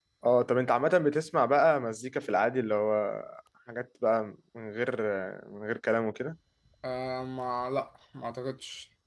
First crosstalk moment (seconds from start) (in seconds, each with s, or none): none